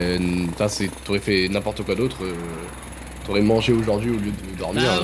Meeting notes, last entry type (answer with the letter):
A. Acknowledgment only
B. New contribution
B